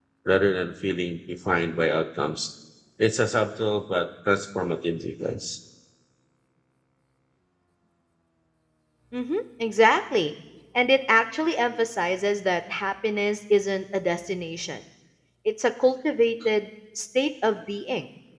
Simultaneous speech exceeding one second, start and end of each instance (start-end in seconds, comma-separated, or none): none